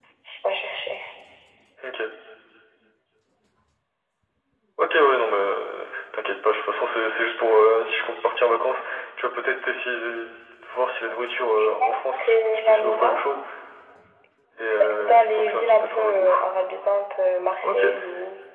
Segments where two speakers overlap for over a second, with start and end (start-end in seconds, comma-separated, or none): 11.8-13.2, 14.8-16.4